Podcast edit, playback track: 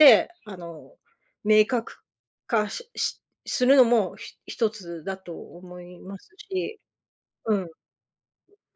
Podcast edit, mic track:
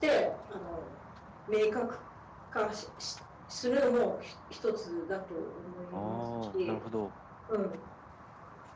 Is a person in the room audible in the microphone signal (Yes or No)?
Yes